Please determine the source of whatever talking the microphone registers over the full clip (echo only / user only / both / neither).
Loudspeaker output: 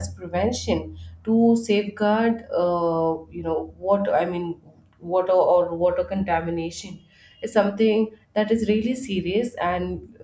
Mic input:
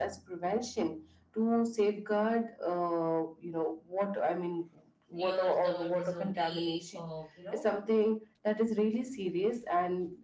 both